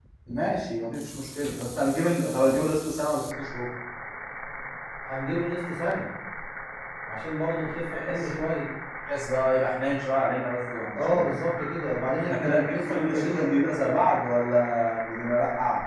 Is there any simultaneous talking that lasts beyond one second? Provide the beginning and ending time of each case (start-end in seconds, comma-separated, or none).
12.2-13.4